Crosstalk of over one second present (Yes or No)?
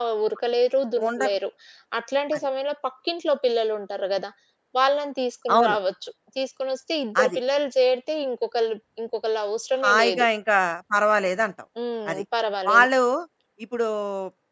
No